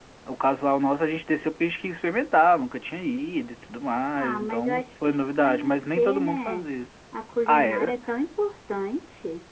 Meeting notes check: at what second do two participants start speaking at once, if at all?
4.2 s

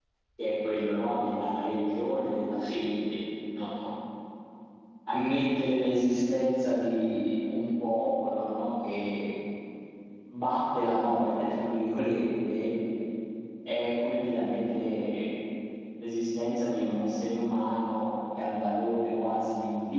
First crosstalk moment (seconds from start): none

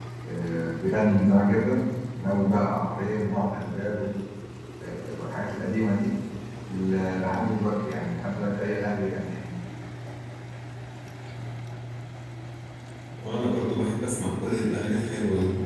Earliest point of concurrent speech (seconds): none

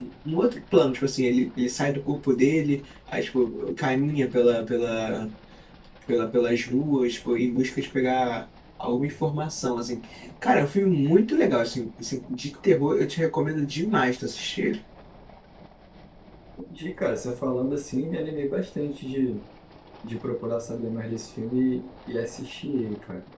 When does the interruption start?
none

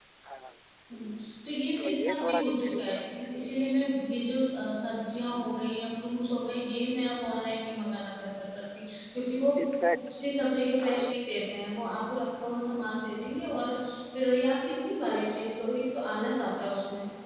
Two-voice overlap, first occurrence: 1.8 s

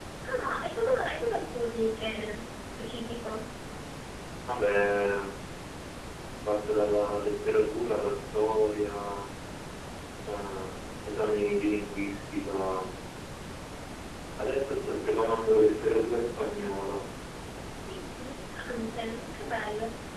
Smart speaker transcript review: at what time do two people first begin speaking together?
none

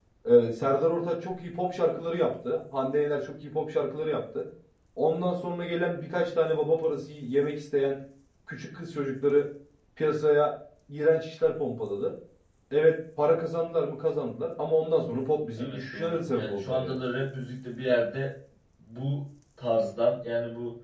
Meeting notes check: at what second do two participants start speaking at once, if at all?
15.6 s

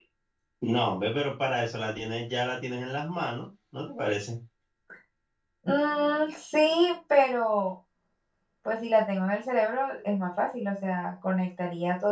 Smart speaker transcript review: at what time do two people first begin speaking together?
none

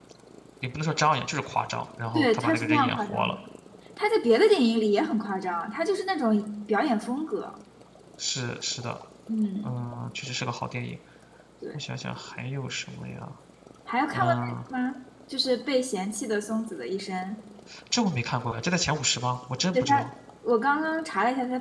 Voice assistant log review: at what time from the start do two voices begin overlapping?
2.1 s

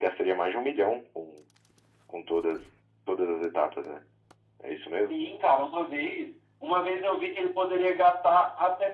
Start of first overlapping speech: none

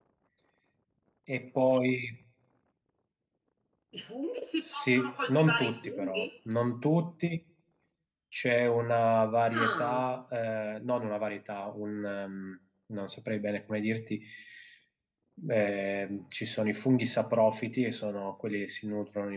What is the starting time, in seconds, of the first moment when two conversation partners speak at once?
4.6 s

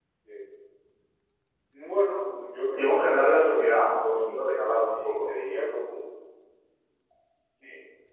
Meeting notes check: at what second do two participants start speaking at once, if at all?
2.8 s

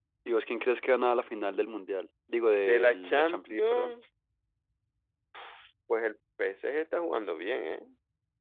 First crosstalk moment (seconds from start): 2.7 s

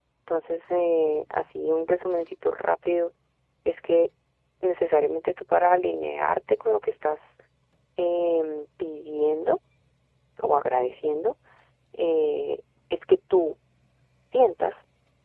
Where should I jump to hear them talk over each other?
none

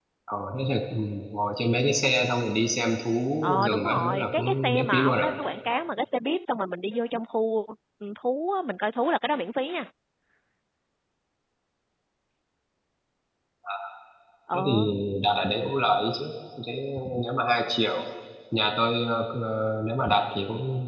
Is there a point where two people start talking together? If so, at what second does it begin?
3.4 s

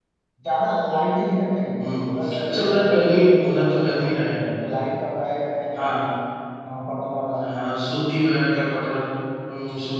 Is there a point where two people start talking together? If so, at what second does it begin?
1.8 s

